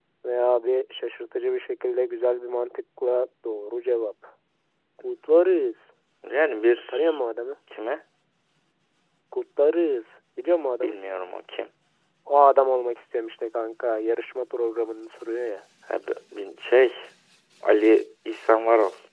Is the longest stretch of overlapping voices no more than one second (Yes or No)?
Yes